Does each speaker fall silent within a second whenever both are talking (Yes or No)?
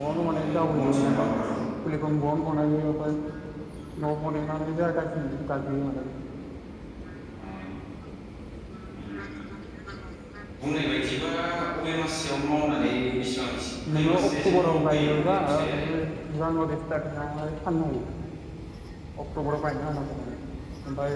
No